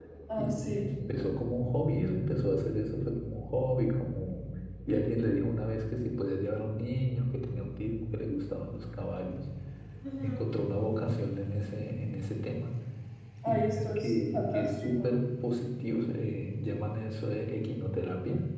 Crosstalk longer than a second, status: present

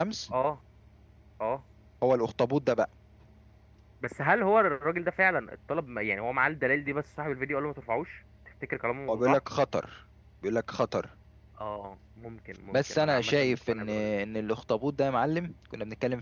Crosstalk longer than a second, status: present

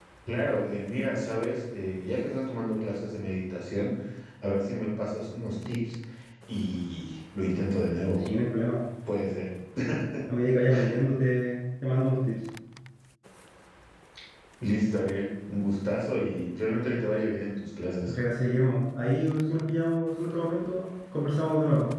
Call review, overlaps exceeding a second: none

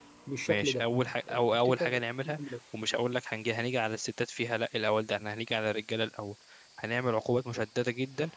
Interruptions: present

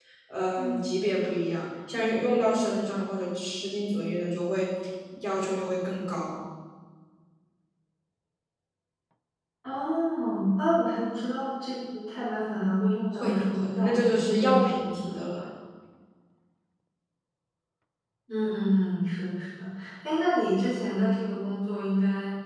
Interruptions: present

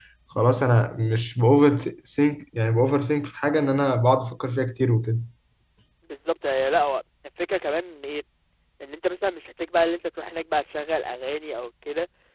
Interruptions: none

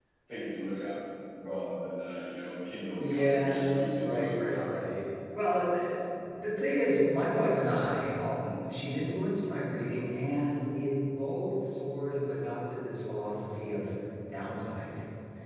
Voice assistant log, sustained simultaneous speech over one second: present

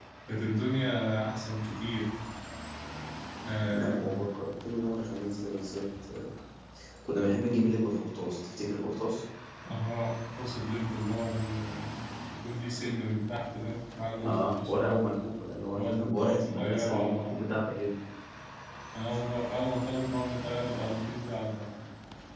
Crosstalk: present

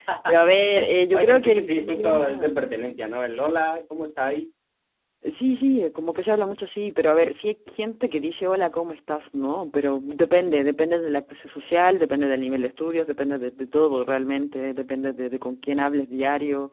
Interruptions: present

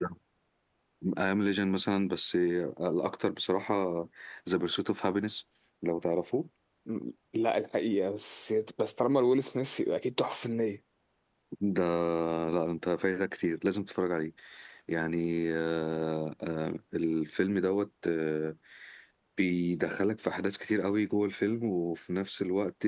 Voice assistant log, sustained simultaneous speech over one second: none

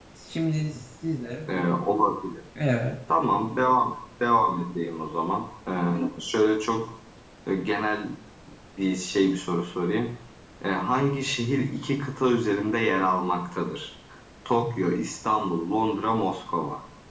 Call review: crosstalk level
none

